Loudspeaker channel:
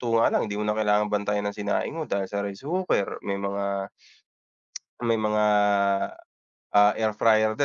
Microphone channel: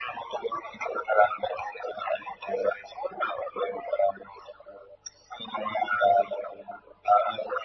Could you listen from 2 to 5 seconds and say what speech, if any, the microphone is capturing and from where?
echo only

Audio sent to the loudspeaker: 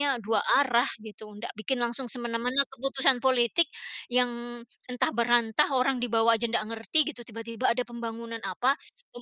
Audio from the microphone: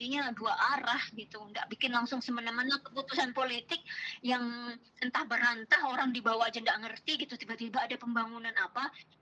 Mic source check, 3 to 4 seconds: echo only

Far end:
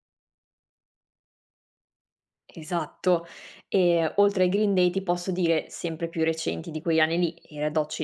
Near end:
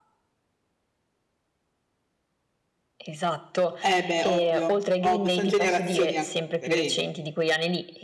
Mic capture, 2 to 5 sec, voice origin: both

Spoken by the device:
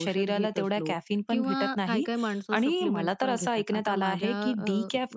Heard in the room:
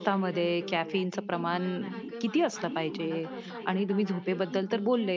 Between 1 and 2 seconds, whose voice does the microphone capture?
both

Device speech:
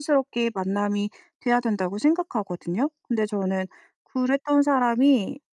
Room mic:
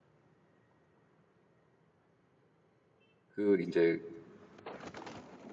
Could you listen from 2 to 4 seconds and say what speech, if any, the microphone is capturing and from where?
user only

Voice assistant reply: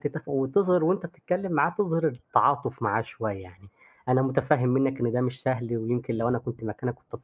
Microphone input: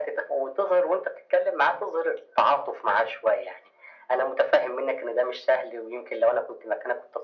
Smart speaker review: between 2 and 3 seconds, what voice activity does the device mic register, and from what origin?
echo only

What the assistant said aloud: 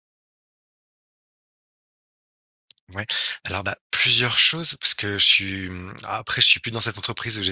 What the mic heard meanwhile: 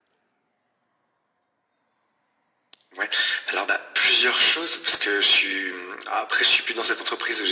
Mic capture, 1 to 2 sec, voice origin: neither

